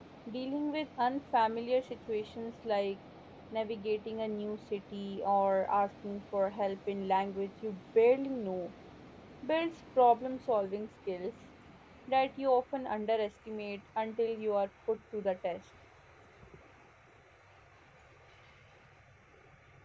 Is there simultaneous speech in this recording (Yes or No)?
No